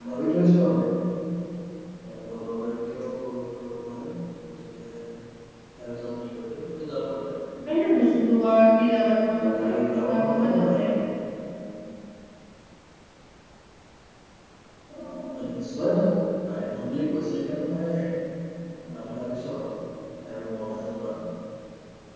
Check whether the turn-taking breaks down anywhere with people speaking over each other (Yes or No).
Yes